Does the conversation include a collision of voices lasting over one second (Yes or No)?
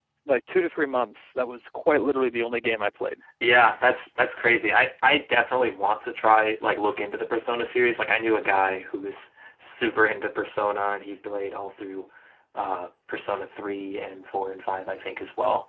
No